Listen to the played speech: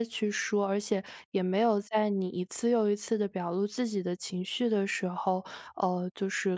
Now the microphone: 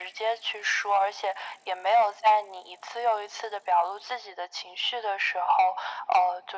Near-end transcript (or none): none